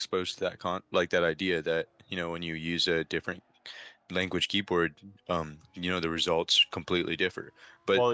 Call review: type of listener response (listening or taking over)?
listening